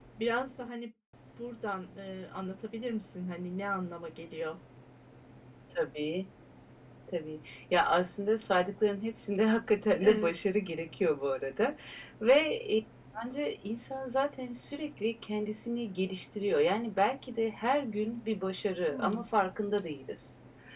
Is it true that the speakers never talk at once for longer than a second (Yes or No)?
Yes